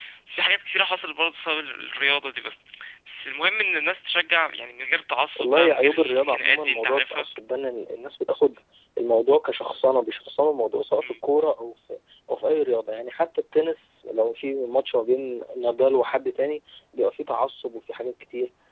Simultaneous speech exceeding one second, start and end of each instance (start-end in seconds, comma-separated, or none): 5.4-7.2